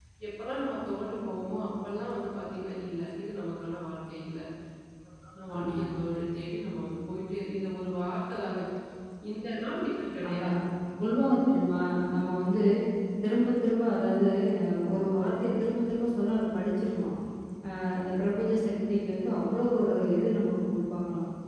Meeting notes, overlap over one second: none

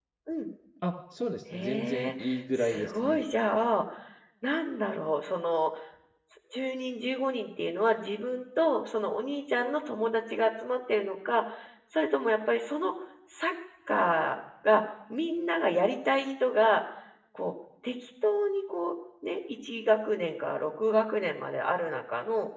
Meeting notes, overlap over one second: present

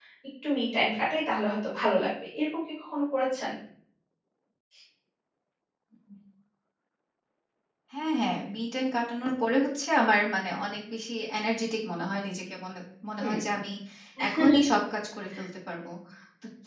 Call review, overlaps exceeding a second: none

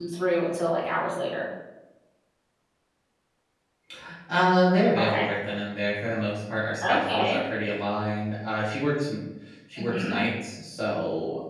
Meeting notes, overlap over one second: none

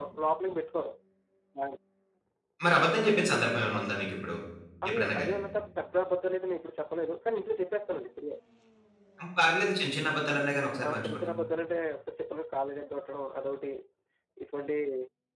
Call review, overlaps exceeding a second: none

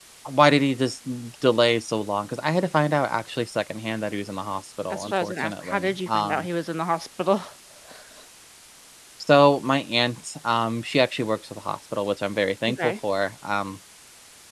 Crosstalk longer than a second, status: present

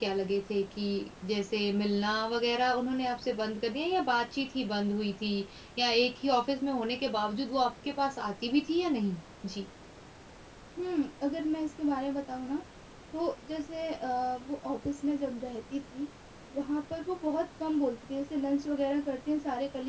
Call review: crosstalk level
none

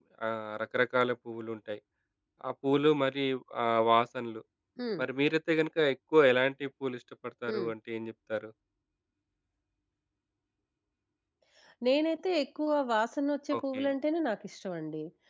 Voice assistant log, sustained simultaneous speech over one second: none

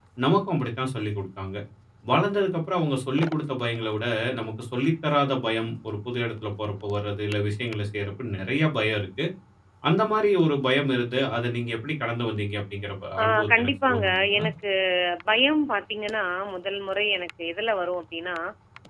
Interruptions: present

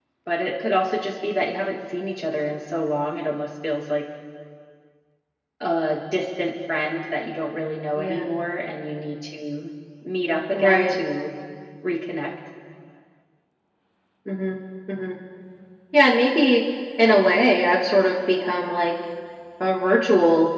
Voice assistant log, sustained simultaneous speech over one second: none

